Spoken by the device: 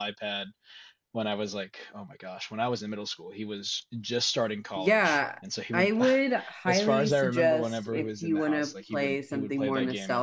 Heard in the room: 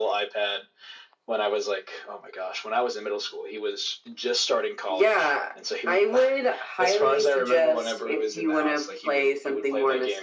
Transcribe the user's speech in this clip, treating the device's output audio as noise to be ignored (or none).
none